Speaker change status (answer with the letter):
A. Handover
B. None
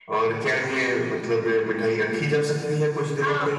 A